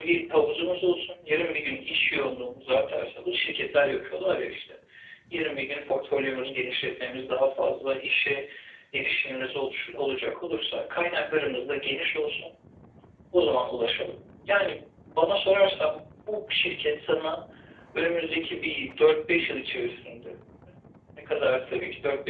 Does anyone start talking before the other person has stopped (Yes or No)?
No